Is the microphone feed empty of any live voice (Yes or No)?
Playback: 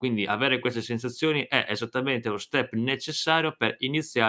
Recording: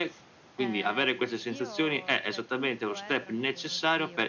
No